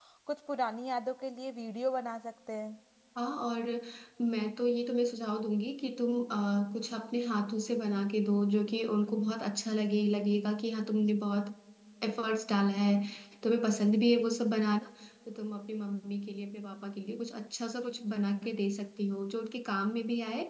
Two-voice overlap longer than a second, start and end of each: none

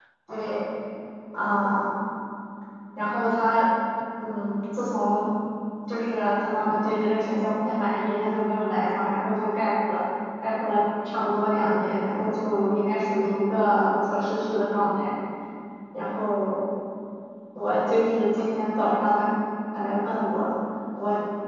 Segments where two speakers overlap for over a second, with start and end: none

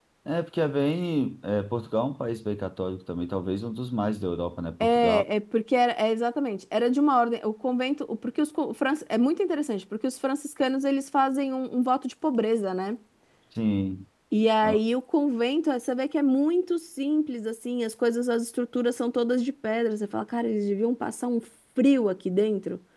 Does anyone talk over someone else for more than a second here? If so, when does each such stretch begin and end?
none

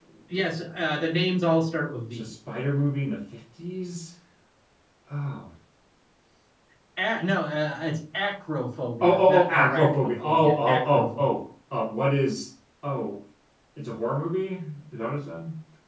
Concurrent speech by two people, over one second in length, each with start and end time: 9.0-11.2

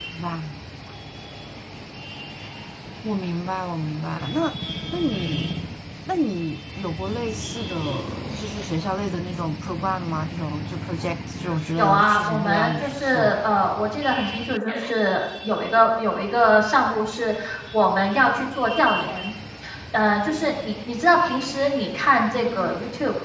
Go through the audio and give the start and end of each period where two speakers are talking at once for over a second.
11.8-13.4

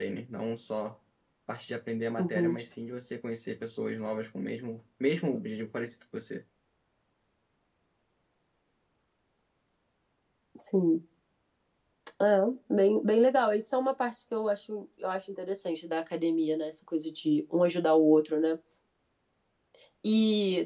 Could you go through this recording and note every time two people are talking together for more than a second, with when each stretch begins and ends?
none

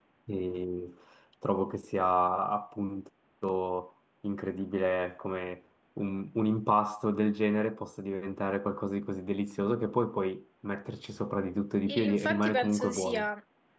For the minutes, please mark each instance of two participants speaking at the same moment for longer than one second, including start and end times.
11.9-13.3

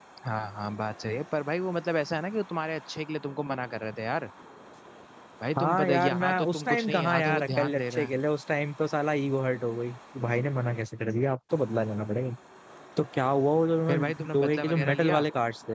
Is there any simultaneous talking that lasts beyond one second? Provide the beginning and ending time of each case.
5.6-8.1, 13.9-15.2

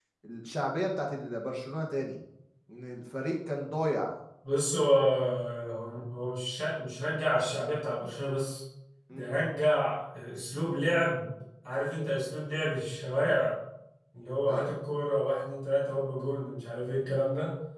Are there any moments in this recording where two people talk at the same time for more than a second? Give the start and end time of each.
none

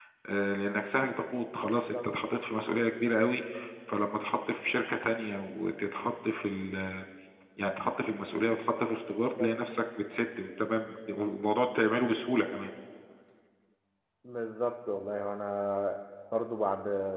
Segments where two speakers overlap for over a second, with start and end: none

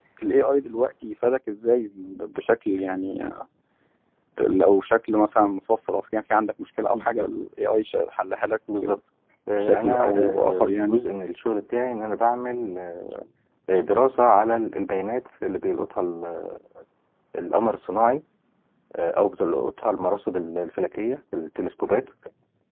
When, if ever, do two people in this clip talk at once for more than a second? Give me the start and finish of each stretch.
9.6-11.0

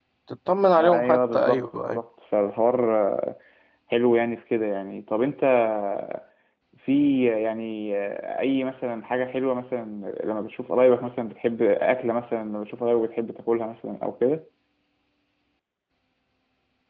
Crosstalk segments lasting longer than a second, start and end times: 0.8-2.0

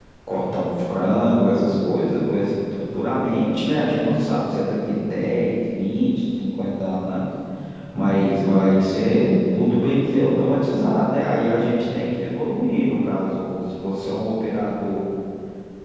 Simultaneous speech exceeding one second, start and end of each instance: none

